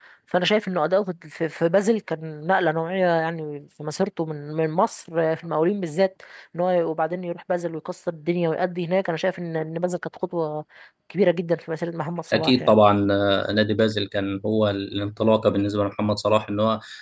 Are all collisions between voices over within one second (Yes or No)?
Yes